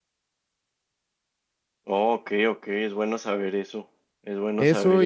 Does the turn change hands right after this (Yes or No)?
Yes